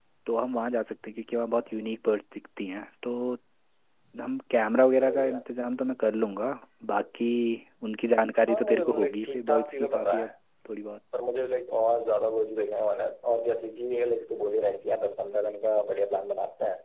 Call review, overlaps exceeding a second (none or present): present